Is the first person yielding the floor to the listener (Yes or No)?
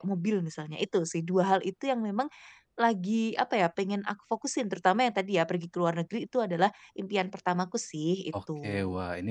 Yes